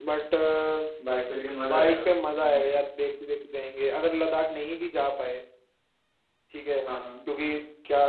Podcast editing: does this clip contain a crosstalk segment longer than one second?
No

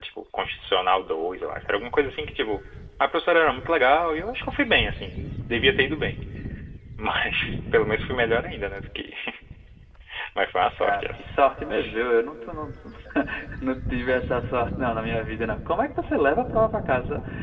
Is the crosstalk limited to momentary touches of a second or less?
Yes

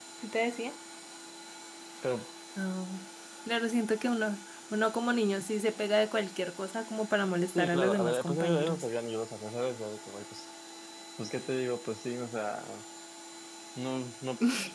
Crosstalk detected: Yes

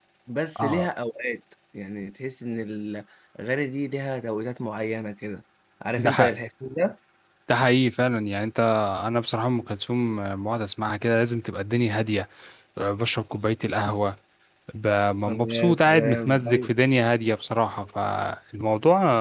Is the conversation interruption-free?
No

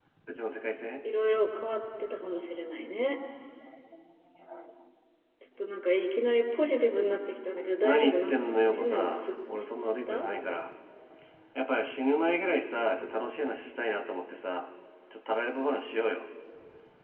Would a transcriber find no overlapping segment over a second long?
No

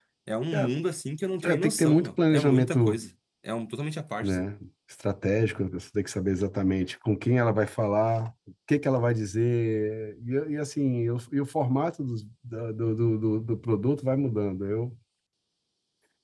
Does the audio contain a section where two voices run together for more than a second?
Yes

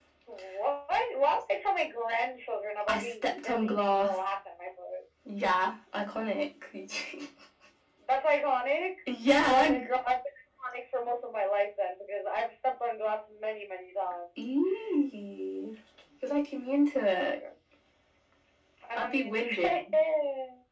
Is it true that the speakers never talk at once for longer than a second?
No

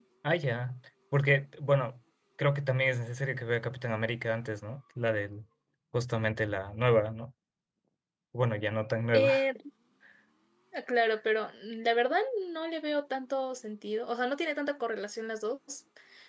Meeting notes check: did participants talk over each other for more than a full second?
No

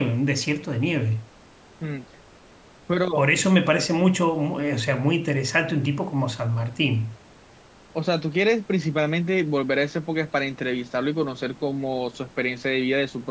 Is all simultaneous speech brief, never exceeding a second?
Yes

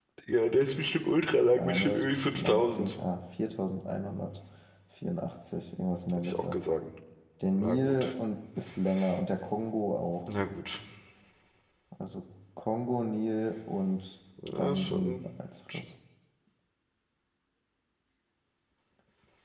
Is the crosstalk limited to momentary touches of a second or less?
No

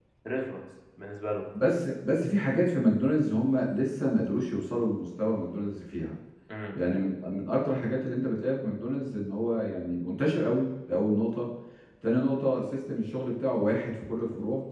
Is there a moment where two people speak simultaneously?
No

